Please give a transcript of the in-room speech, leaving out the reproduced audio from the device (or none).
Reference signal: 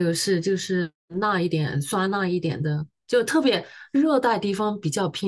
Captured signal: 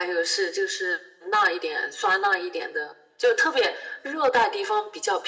none